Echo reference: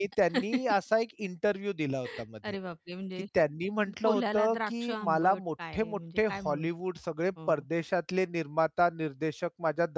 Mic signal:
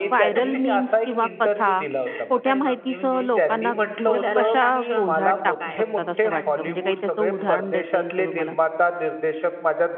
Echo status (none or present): present